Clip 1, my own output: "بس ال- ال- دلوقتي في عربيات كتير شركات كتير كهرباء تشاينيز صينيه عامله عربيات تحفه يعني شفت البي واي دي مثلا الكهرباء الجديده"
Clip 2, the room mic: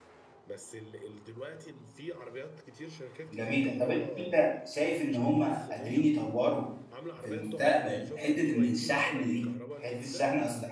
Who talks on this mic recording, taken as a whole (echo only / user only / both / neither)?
both